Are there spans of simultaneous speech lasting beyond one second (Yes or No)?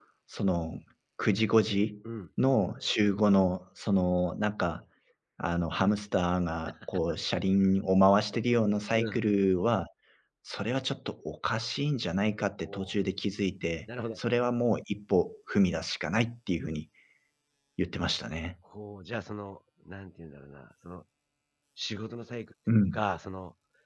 No